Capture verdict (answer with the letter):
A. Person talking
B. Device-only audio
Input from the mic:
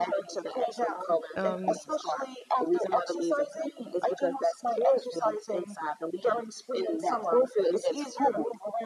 A